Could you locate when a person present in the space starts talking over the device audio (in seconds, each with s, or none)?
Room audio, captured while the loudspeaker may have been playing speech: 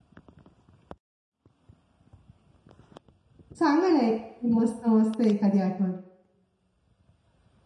3.6 s